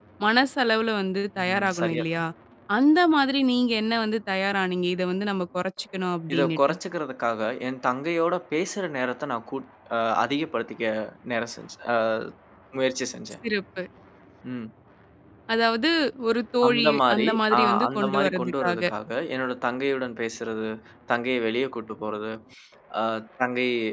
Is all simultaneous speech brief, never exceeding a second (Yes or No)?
No